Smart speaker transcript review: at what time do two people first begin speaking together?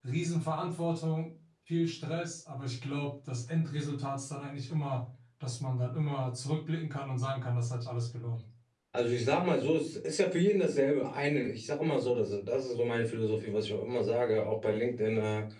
none

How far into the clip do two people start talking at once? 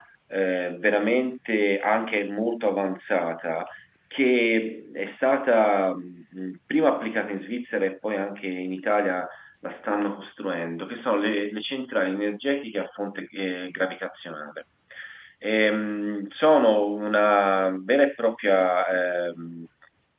none

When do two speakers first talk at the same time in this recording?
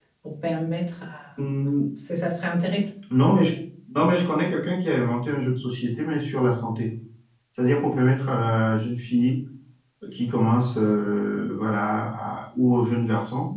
none

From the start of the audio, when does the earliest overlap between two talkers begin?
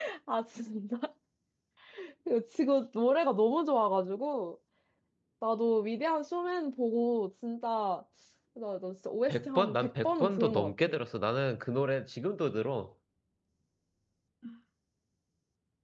9.3 s

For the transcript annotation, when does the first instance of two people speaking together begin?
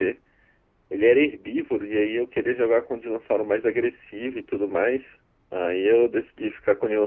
none

